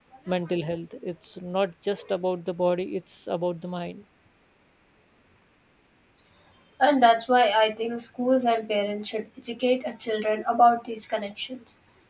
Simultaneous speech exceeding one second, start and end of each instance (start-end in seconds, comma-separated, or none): none